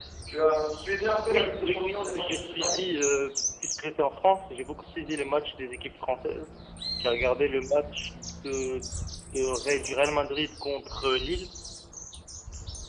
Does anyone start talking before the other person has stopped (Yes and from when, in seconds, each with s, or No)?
Yes, from 1.3 s